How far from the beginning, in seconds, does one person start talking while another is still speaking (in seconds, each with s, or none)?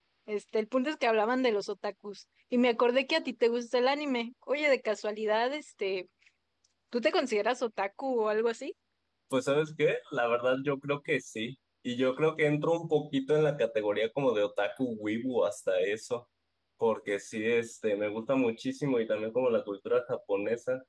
none